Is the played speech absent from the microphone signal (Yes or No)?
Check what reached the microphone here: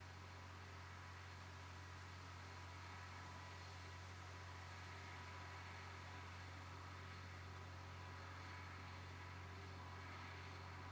Yes